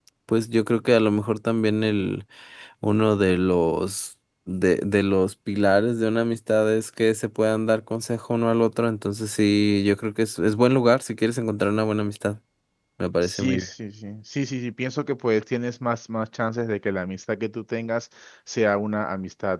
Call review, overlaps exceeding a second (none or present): none